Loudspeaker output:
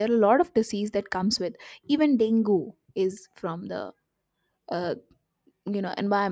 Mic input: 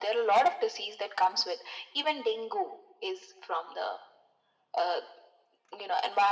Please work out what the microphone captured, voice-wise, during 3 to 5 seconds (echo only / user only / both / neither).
echo only